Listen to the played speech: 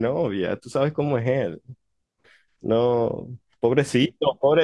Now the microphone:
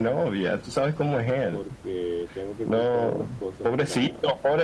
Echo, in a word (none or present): present